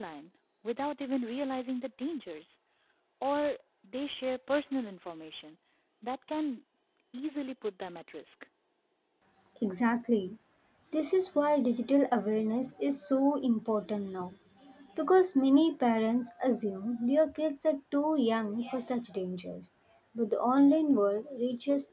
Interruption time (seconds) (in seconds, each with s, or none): none